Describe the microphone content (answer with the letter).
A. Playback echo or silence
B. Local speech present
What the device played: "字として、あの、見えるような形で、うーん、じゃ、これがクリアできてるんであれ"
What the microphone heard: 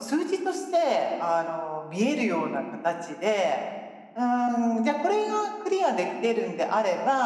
A